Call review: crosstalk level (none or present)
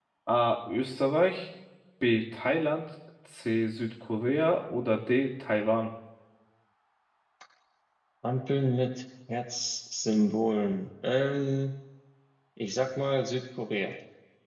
none